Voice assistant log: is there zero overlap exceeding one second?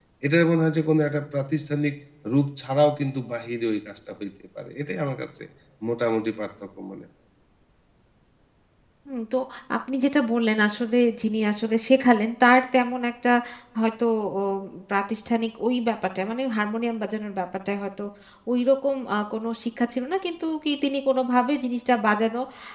Yes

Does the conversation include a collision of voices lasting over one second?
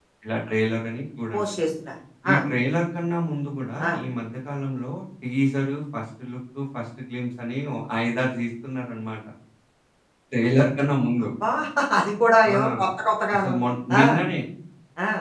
No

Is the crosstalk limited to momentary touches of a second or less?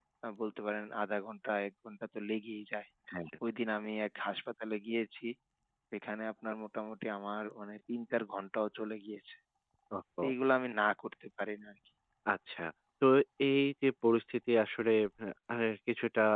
Yes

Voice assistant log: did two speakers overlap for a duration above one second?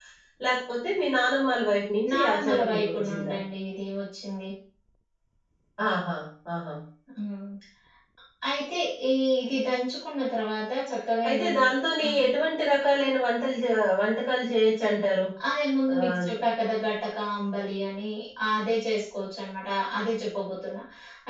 Yes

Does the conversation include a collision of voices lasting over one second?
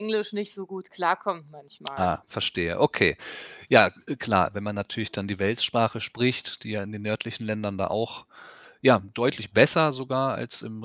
No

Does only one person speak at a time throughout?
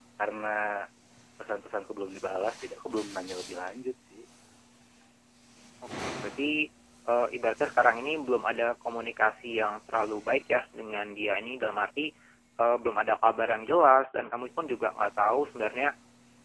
Yes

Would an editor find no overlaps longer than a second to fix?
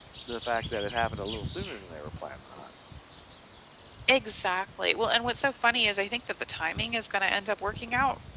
Yes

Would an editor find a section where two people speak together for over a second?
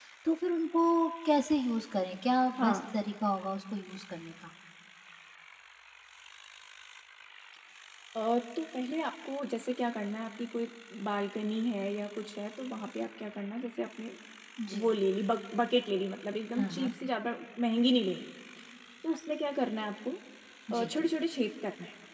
No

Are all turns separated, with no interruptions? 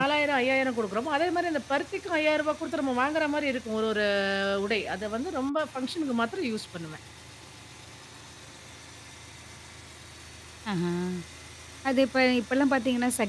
Yes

